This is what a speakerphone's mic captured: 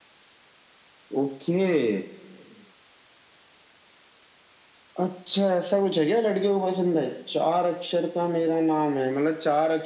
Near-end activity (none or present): none